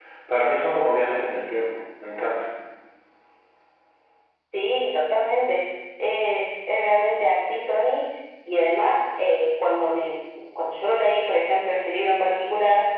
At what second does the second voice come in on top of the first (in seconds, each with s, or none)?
none